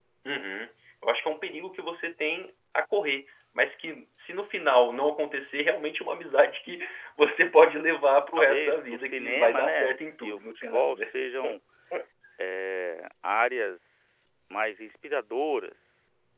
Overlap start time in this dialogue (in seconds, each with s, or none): 8.4 s